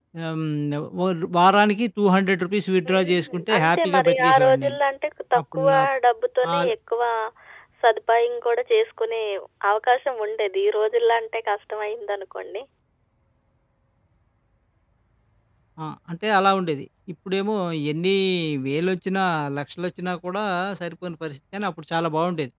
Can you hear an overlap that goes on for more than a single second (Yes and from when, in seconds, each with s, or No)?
Yes, from 2.9 s